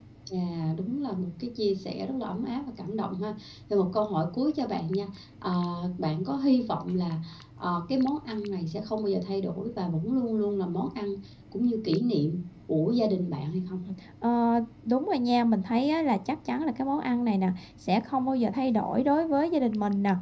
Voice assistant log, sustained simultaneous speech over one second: none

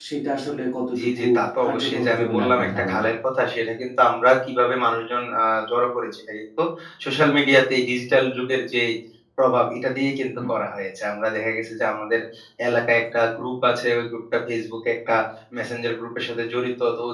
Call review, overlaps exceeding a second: present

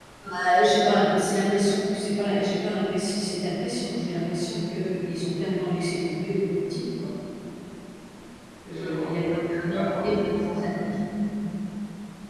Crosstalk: present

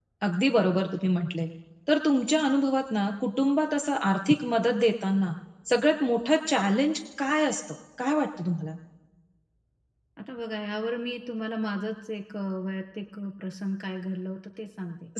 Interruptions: none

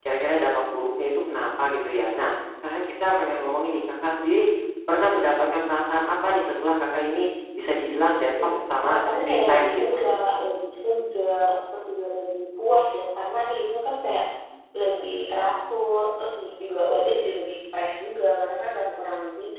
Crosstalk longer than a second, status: present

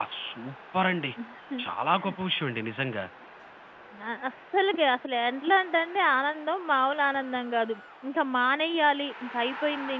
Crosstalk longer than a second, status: none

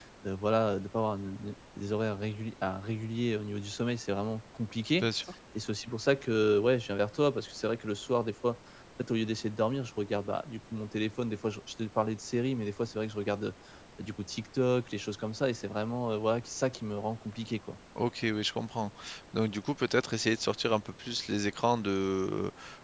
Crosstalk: none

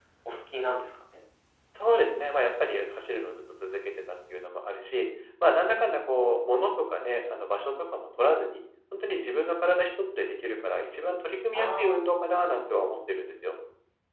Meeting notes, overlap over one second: none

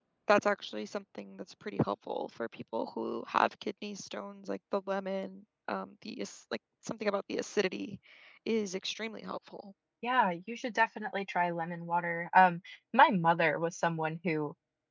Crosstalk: none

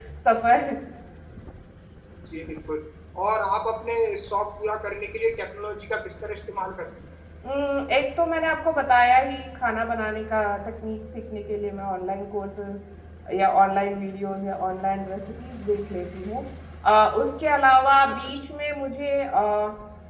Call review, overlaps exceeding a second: none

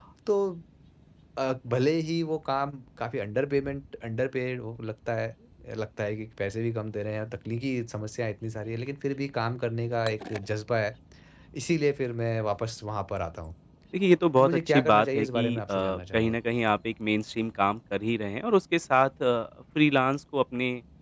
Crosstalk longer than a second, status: present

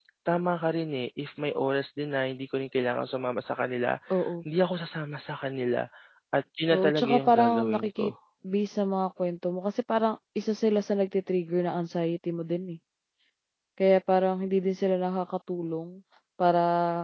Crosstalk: present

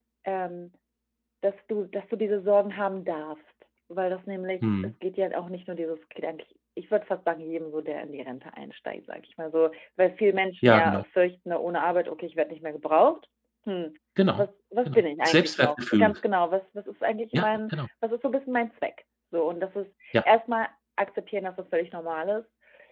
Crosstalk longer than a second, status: present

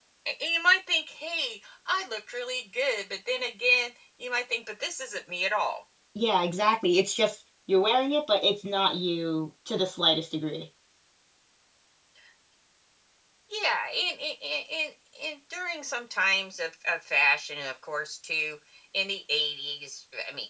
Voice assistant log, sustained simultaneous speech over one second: none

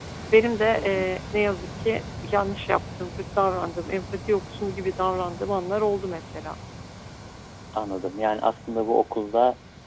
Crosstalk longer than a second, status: none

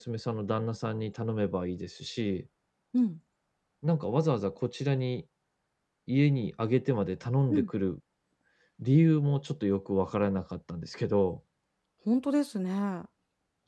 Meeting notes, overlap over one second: none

